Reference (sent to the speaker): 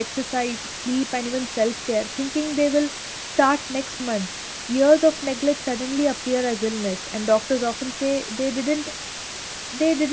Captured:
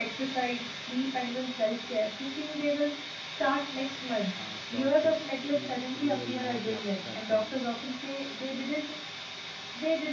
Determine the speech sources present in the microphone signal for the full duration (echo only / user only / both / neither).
both